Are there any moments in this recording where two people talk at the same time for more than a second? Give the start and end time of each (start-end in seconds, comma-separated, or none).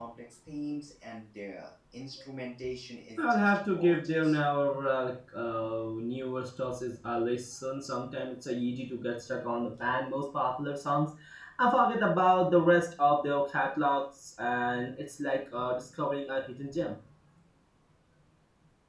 3.2-4.4